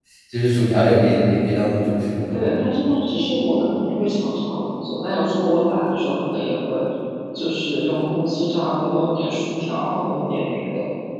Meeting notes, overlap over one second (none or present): none